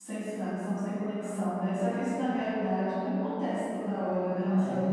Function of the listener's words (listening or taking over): taking over